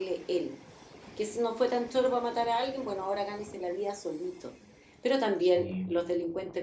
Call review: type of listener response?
listening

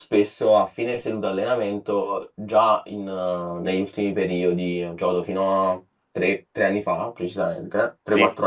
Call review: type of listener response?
listening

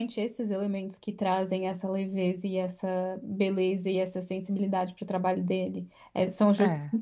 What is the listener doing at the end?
listening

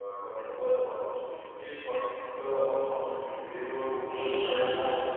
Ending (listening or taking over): taking over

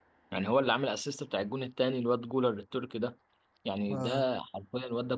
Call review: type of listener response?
listening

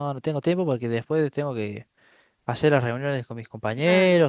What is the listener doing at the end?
taking over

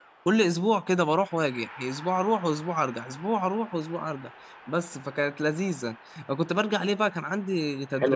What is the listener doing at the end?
taking over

